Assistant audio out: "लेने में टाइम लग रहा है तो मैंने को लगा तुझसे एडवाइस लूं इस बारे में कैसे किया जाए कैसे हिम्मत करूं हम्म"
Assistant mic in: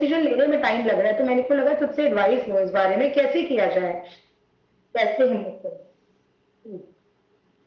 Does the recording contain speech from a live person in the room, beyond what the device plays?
No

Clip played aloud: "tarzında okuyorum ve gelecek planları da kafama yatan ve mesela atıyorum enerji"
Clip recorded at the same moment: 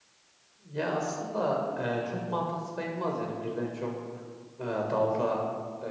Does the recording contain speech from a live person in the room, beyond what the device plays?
Yes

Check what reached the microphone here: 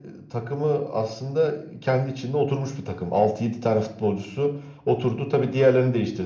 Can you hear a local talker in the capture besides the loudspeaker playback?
No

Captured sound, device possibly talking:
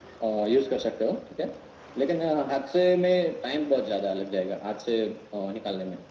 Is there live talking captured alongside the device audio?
No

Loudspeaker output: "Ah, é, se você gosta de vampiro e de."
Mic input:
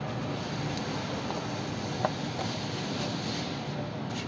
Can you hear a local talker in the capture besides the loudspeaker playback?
No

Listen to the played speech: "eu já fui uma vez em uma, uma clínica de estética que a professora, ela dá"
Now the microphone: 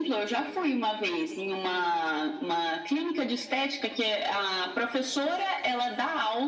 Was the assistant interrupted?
No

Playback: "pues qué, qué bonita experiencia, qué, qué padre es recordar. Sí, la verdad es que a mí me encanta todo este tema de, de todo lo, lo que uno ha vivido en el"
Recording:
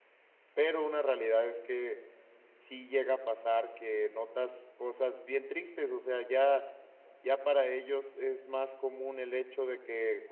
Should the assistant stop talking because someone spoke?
Yes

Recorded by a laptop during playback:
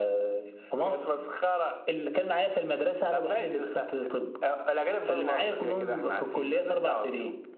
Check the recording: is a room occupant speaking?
No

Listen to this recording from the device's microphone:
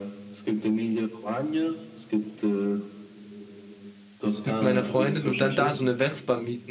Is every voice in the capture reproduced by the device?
No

